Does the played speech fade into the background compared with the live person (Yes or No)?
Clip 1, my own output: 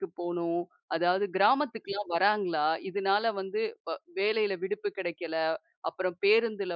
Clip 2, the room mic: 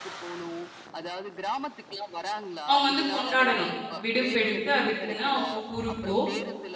Yes